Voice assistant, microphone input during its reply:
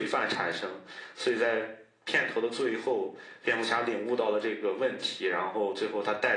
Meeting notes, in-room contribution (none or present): none